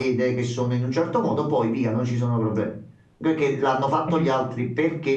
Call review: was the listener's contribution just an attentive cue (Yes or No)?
Yes